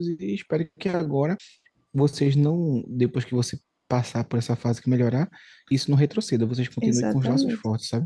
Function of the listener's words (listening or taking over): taking over